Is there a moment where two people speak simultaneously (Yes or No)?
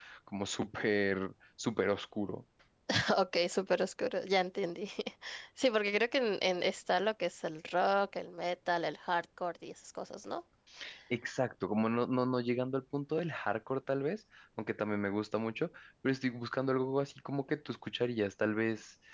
No